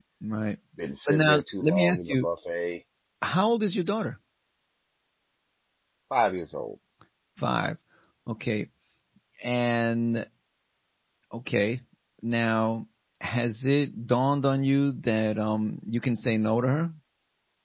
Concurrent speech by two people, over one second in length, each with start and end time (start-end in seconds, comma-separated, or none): 1.1-2.3